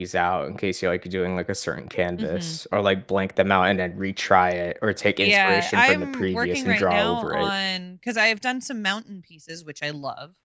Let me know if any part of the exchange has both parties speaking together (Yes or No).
Yes